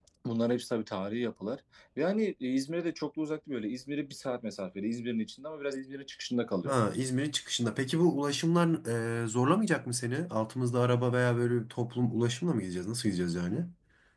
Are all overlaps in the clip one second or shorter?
Yes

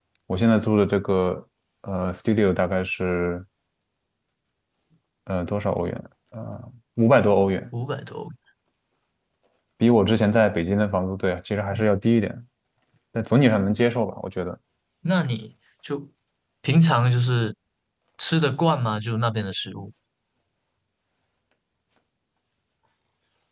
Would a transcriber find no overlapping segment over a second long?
Yes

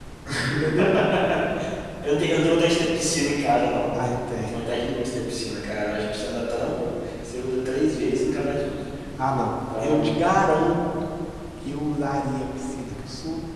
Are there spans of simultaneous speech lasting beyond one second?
No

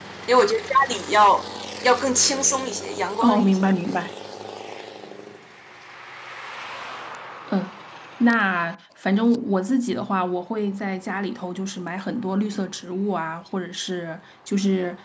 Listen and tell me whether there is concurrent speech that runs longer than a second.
No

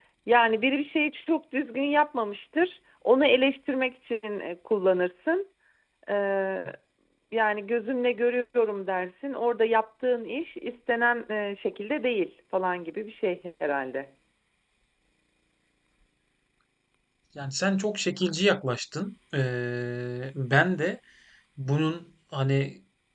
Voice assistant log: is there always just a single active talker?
Yes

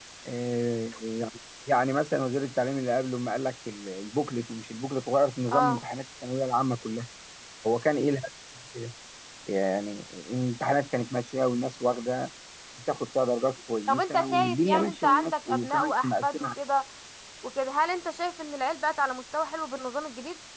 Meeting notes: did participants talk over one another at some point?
Yes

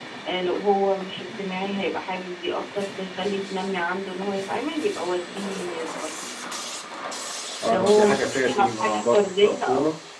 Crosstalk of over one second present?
Yes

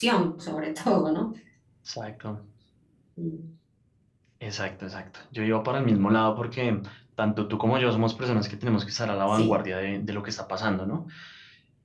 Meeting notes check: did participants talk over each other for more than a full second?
No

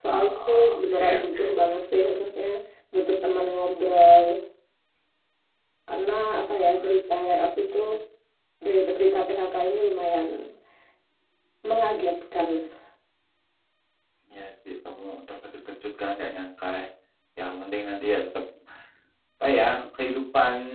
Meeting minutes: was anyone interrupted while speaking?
Yes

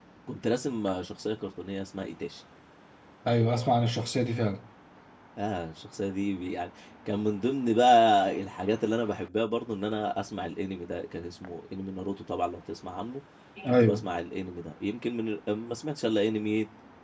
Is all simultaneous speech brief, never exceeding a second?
Yes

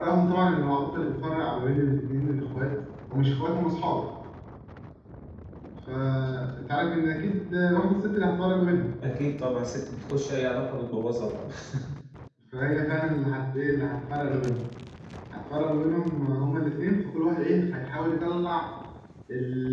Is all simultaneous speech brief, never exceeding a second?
Yes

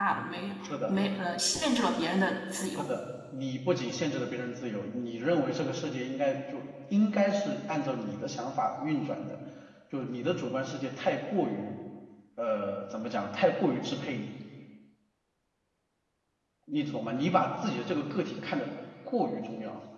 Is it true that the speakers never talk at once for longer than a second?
Yes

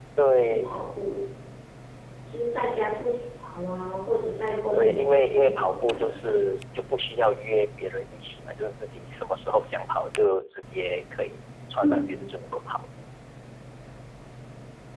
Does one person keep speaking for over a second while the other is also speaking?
Yes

